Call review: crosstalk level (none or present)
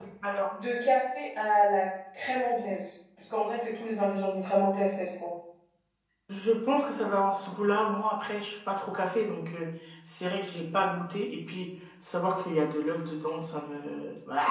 none